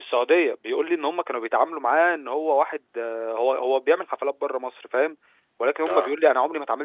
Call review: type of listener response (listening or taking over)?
listening